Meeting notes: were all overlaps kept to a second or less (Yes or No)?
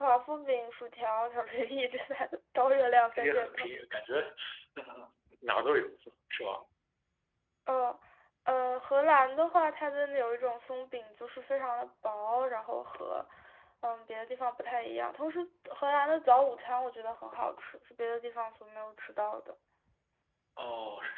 Yes